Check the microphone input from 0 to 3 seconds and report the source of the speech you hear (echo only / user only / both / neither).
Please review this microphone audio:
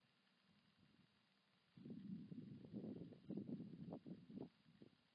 neither